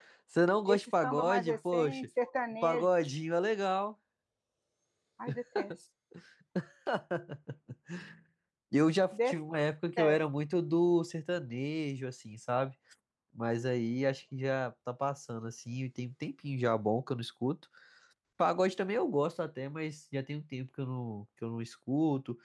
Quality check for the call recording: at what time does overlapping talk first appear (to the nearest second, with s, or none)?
1 s